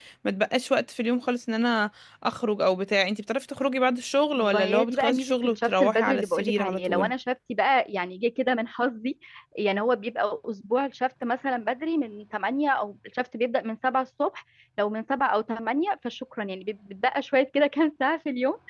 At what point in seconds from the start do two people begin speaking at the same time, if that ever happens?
4.3 s

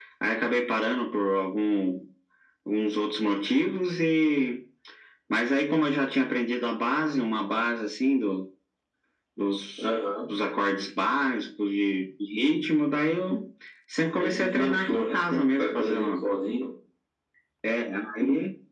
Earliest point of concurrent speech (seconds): 14.1 s

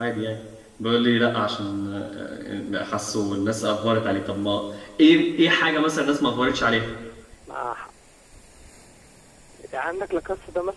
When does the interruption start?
none

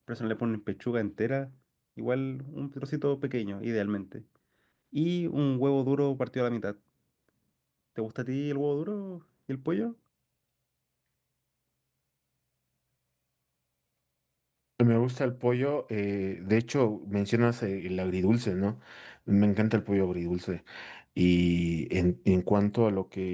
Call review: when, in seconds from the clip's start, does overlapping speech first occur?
none

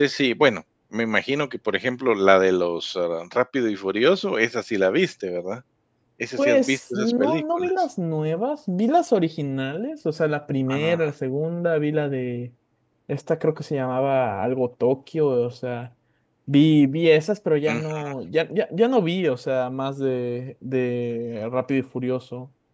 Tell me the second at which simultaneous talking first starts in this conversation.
6.4 s

